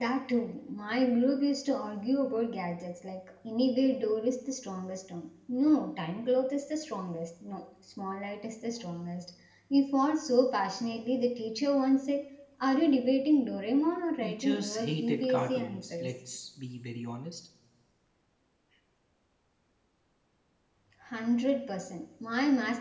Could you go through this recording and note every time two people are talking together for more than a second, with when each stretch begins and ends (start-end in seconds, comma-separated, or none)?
14.2-16.1